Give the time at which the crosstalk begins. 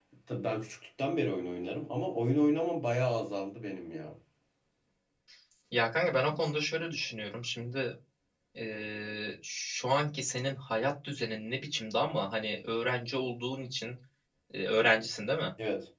none

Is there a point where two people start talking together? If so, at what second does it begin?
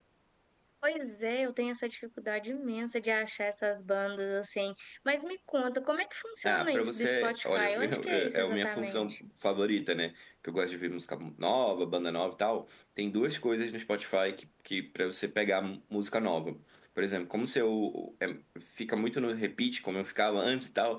6.4 s

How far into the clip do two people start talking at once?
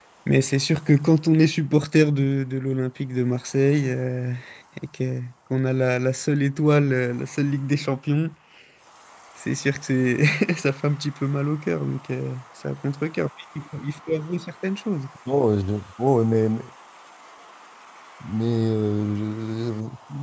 none

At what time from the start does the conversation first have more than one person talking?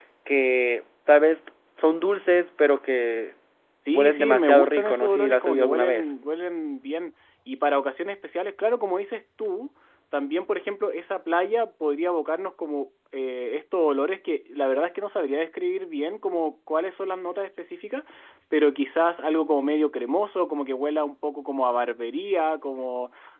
3.9 s

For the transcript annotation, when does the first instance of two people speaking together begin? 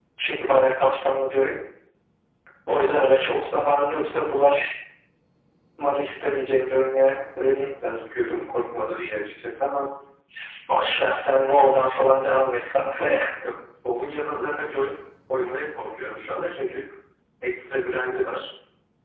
none

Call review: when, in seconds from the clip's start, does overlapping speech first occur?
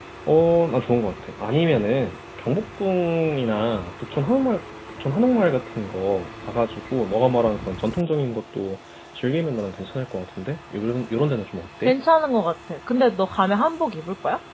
none

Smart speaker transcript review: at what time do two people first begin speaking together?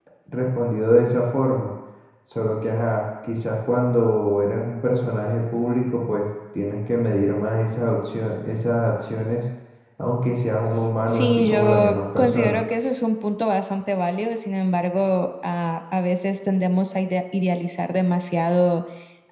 11.1 s

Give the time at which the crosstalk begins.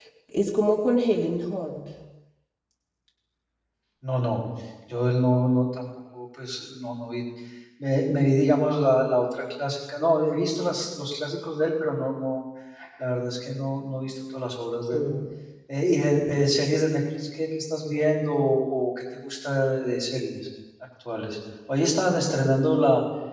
none

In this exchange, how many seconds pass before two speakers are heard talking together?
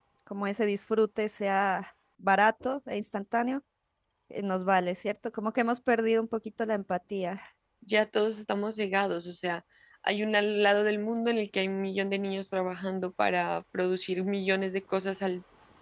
none

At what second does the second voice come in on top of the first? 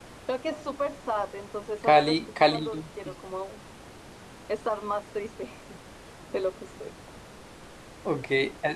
1.8 s

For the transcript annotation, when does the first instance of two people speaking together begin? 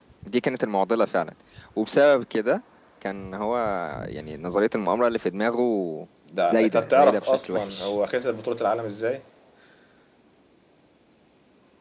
6.5 s

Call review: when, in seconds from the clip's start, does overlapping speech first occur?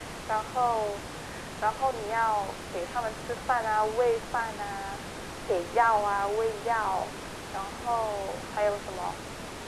none

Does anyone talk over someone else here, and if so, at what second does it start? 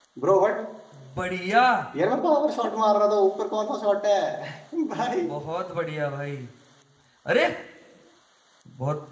none

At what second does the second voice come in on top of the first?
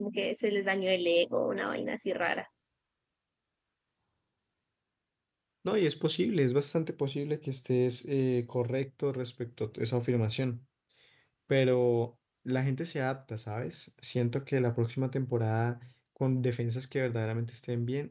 none

